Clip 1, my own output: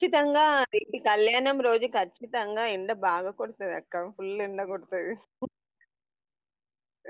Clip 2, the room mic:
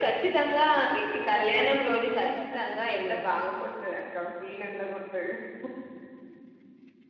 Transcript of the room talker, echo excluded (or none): ఇబ్రగాలు చెట్లు చెట్టకులు తింటాందిగా